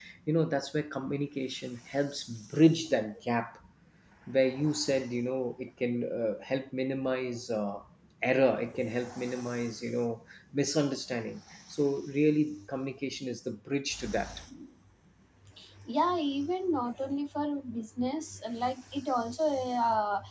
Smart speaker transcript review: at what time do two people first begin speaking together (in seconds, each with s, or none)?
none